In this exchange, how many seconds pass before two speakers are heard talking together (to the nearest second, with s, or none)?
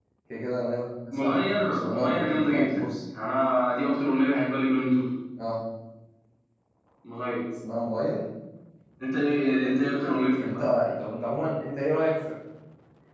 1 s